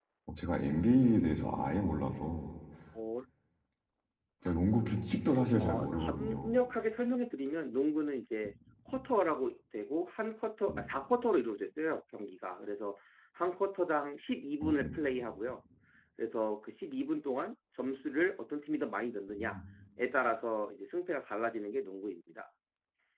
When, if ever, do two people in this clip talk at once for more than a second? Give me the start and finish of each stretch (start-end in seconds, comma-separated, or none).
5.2-6.5